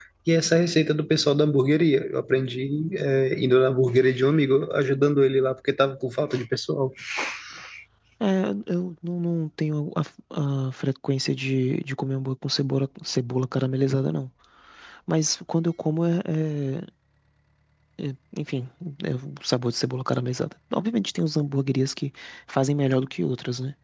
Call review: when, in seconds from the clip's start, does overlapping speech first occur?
none

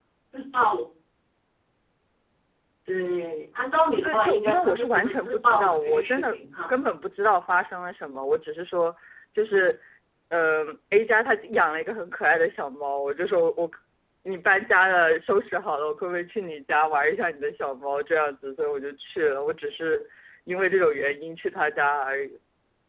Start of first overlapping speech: 4.0 s

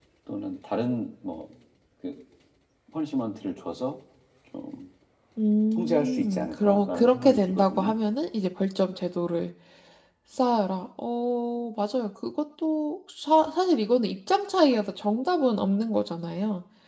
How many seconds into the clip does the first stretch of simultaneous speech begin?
5.7 s

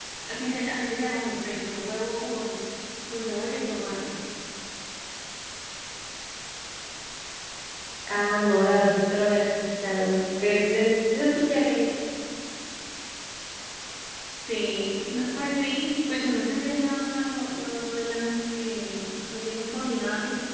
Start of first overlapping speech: none

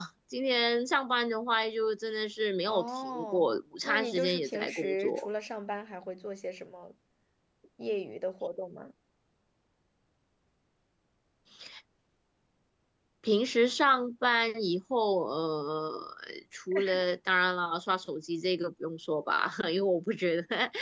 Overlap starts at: 2.7 s

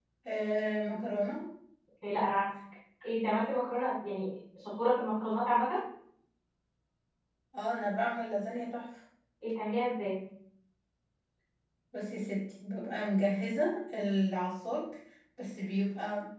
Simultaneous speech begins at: none

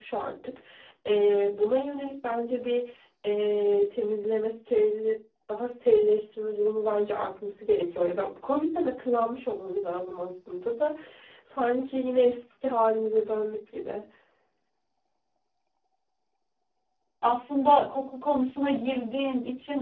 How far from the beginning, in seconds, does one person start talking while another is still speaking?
none

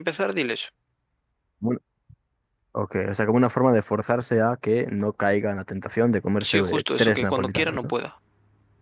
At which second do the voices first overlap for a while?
6.4 s

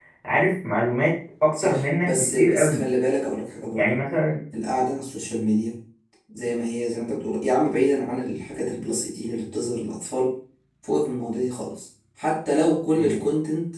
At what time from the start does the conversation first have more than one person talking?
1.5 s

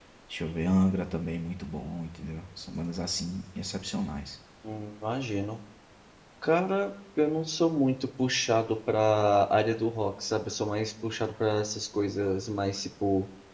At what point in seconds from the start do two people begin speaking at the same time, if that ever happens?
none

